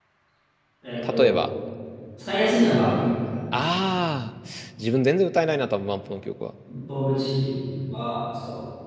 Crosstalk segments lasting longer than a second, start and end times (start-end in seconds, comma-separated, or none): none